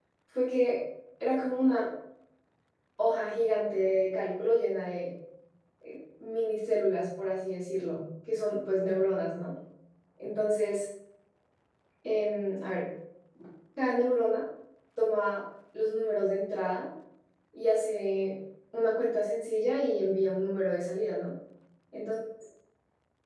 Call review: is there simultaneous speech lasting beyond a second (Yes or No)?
No